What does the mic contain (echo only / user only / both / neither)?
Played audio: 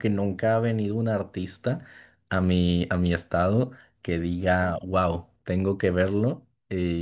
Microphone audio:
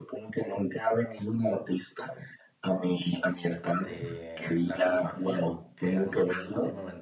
both